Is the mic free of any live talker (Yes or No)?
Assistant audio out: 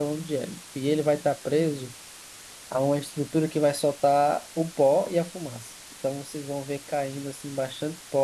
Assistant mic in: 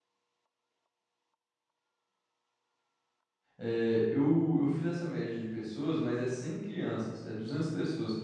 No